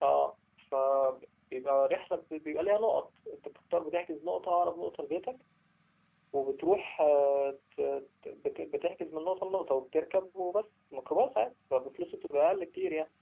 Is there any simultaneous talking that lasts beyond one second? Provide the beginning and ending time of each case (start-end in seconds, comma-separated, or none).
none